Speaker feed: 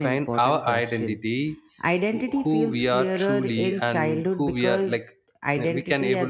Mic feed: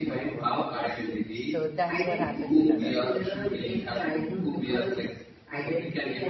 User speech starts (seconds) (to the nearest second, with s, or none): 1 s